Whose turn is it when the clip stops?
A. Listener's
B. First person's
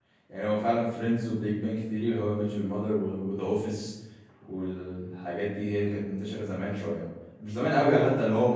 B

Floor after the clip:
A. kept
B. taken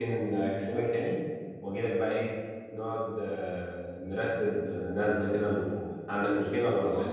B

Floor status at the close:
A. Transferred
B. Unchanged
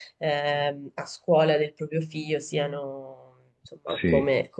B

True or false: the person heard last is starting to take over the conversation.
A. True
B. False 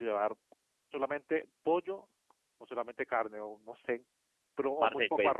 A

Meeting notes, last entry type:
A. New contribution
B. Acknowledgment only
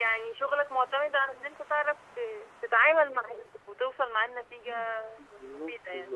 A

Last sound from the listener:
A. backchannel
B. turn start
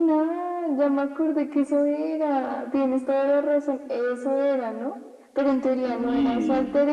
A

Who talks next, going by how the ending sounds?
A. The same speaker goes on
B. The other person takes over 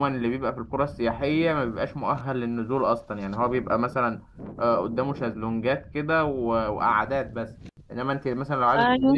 A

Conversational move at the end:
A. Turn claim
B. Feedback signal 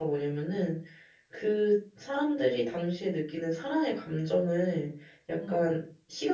B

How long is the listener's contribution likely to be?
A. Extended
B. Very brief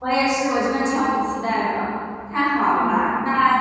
B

